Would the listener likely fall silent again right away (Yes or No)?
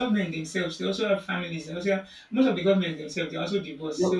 No